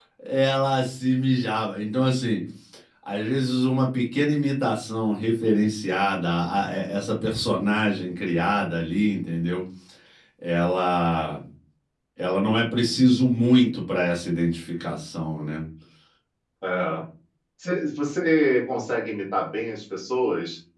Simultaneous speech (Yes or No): No